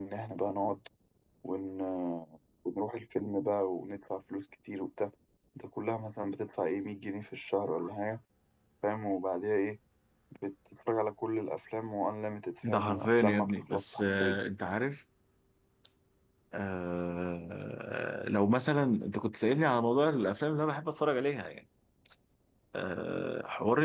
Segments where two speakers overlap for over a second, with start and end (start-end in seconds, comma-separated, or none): 12.7-14.4